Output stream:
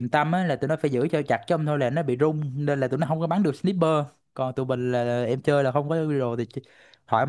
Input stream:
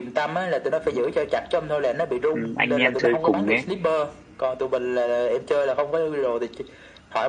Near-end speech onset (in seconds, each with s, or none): 2.3 s